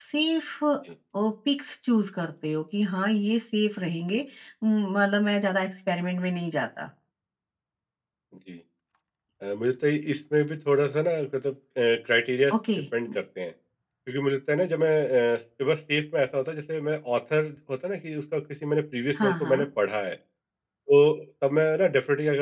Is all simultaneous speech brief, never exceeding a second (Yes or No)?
Yes